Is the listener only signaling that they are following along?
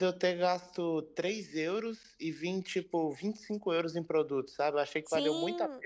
No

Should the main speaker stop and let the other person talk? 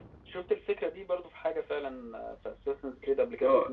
Yes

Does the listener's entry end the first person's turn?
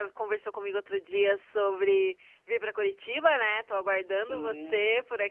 No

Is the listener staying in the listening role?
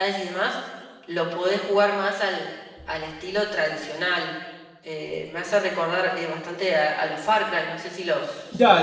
No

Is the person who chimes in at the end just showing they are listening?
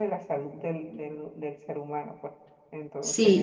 No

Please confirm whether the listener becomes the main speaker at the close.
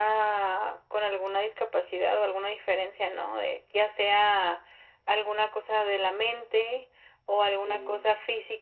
No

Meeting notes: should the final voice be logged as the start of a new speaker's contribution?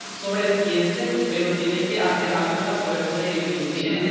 No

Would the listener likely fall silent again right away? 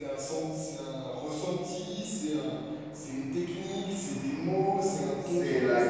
No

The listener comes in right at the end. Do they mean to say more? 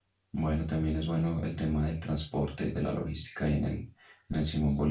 Yes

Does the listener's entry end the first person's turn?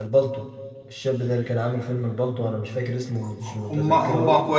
Yes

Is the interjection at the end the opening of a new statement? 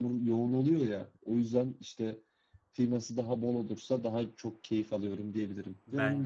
No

